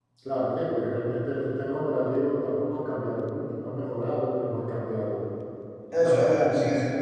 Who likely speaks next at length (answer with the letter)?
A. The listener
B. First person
A